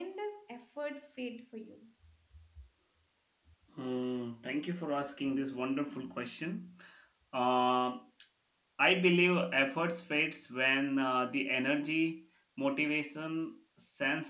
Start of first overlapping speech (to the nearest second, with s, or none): none